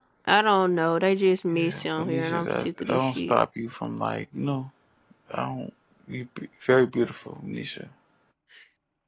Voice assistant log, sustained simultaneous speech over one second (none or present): present